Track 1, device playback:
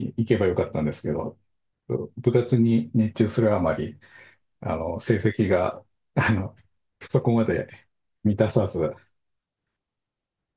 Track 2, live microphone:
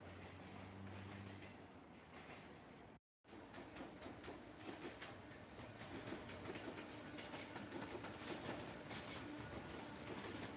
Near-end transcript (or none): none